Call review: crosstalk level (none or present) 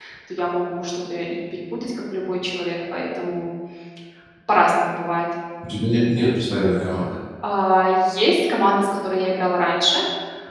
none